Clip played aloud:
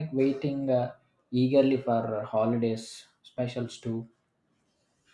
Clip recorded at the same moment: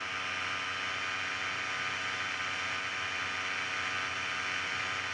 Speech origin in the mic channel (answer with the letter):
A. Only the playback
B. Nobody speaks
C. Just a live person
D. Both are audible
B